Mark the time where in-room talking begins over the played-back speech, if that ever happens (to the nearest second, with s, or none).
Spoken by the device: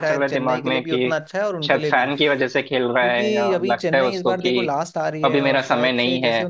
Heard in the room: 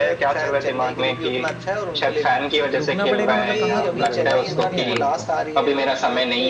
3 s